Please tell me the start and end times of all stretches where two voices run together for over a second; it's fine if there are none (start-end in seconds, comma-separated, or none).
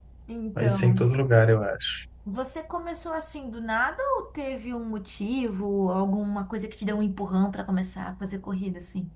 none